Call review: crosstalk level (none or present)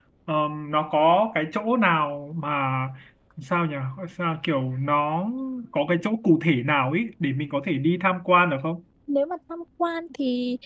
none